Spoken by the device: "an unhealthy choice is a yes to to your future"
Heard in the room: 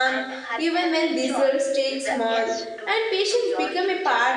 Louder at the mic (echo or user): user